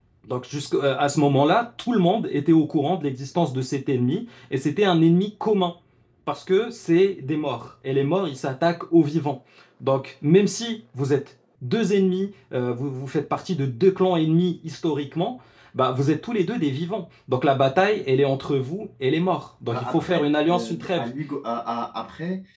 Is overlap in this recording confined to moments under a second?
No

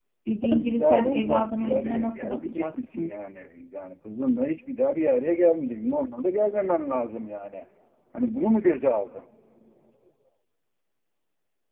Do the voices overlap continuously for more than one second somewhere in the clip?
Yes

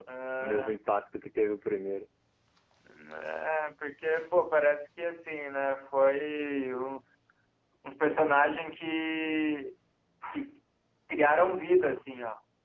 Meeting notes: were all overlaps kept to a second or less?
Yes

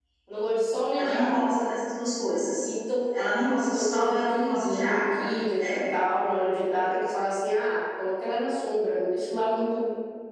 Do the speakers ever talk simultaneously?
Yes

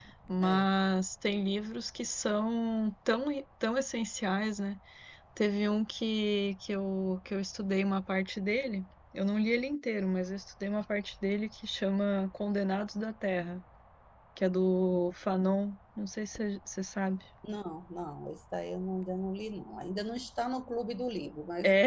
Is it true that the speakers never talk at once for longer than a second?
Yes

